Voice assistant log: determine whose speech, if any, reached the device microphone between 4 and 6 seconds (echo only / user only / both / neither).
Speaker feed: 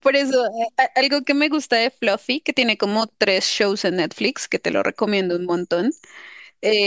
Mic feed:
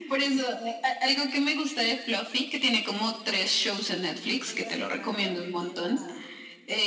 both